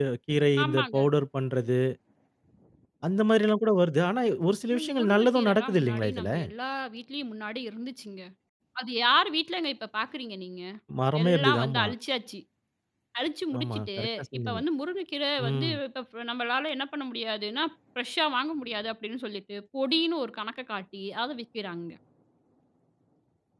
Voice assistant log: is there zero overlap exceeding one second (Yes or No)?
No